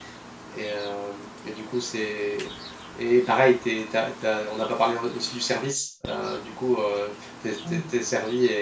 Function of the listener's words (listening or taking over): listening